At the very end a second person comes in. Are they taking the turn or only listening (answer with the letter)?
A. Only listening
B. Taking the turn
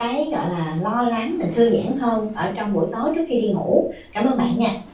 B